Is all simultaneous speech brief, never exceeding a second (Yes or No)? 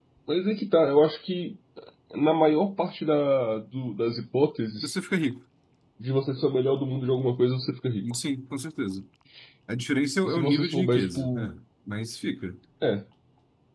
No